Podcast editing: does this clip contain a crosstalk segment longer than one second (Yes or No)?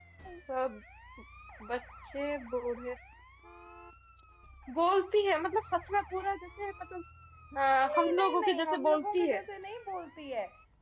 Yes